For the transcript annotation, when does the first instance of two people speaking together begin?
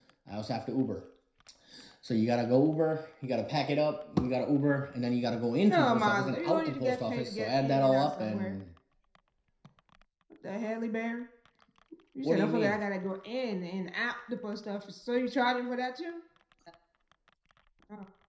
5.7 s

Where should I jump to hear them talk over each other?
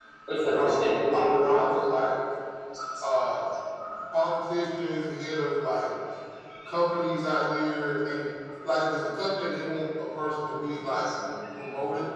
0.5 s

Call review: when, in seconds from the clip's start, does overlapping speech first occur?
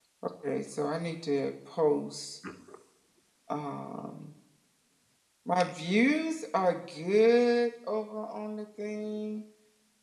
none

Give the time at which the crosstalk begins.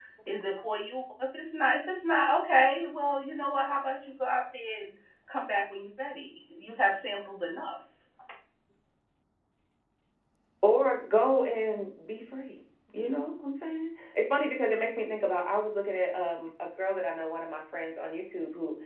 none

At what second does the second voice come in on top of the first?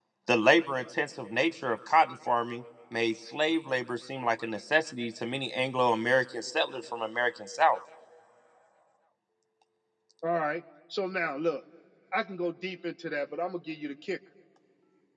none

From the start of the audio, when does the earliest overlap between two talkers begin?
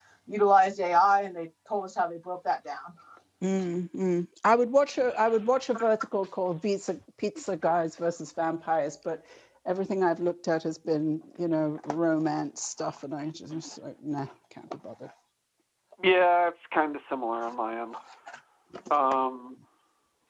none

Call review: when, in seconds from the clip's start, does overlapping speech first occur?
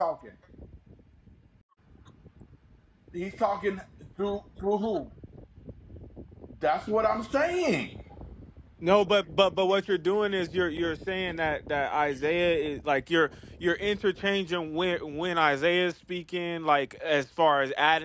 none

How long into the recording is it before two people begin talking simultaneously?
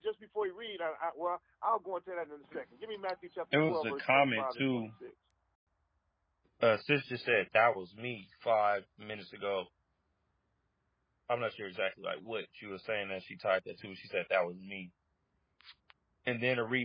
3.5 s

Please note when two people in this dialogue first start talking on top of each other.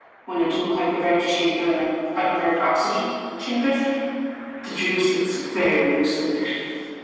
none

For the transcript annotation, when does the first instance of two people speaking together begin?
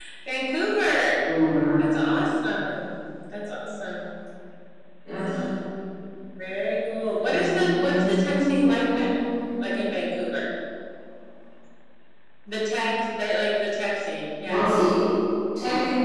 7.2 s

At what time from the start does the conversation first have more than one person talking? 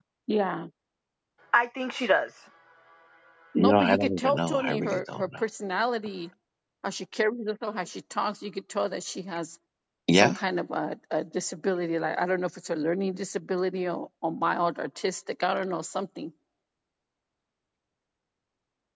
3.6 s

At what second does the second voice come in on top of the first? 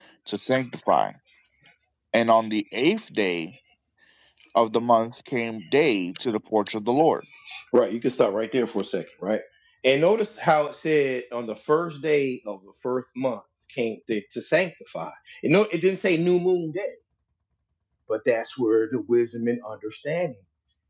none

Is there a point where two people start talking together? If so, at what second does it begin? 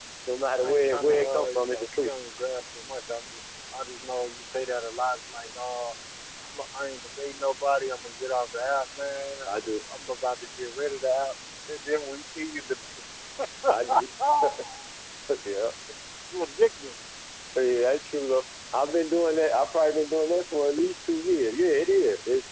0.6 s

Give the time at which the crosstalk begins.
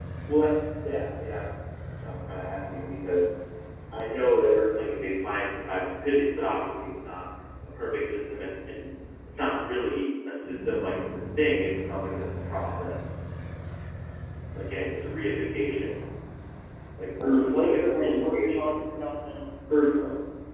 17.2 s

